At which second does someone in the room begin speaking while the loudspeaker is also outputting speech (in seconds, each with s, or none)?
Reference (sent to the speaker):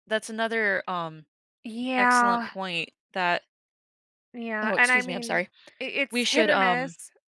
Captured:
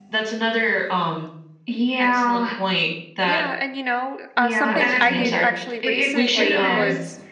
3.2 s